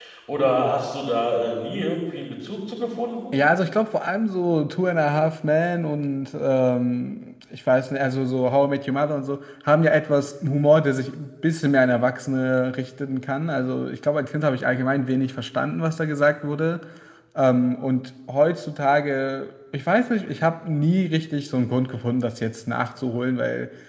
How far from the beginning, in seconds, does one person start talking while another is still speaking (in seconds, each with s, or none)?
none